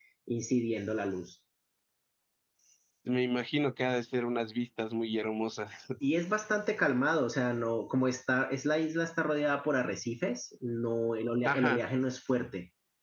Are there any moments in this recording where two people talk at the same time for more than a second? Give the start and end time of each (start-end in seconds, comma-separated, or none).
none